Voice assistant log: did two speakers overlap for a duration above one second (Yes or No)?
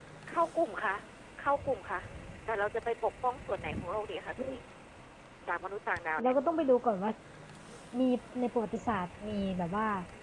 No